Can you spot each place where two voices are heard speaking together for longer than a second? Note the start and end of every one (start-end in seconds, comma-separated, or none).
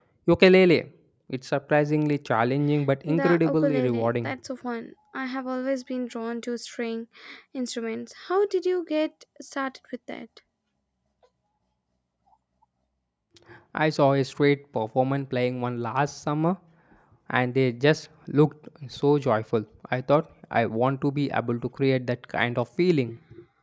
3.1-4.3